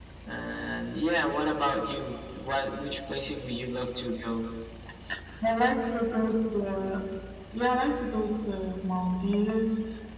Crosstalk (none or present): none